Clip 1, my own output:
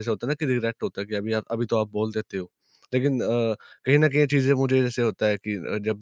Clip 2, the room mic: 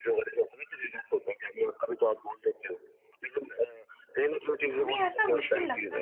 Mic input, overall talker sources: both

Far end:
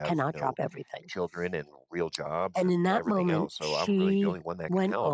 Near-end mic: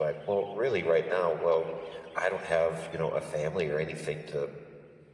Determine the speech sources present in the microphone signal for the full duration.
user only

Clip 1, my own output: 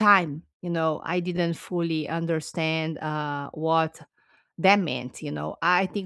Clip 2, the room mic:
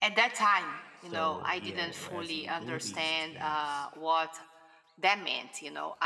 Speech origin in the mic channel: both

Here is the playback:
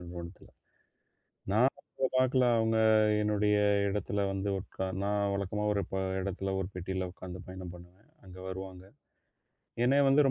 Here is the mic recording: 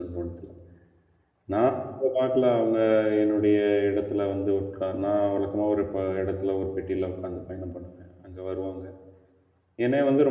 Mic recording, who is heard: echo only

